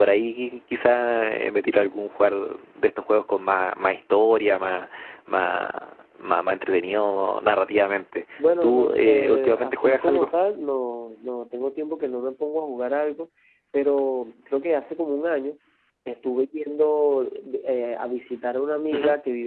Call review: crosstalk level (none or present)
present